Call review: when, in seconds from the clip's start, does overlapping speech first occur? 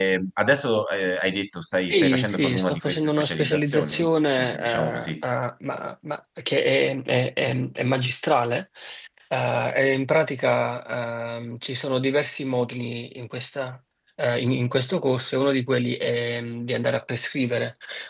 1.9 s

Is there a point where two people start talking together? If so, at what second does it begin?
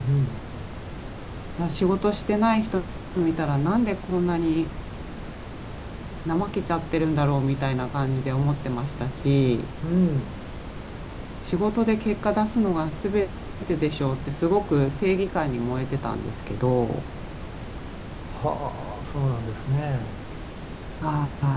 none

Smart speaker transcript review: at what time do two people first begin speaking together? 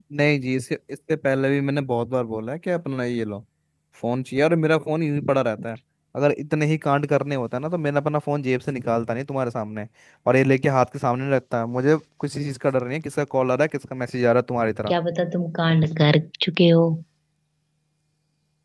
none

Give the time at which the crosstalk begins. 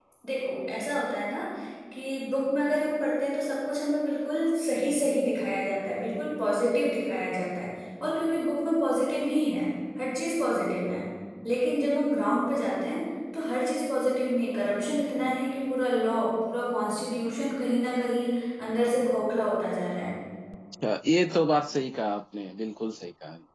none

